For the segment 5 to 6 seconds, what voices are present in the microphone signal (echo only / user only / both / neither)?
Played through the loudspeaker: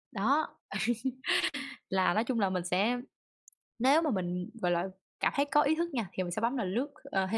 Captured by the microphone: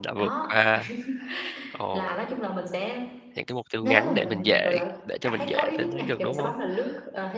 both